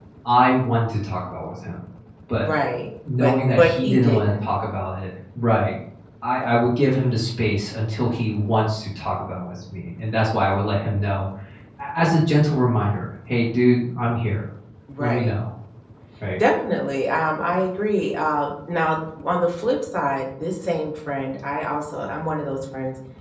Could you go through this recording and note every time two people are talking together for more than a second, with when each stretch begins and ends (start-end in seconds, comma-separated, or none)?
3.2-4.4